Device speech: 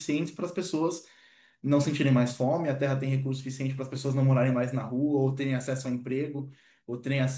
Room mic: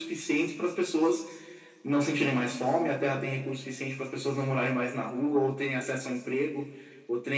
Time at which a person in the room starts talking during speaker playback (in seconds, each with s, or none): none